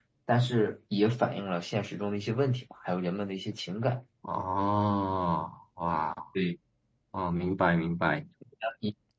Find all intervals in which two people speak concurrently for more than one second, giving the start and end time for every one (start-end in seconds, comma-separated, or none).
none